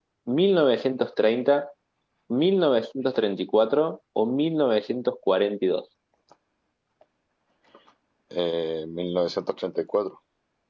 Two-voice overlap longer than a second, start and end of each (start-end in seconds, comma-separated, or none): none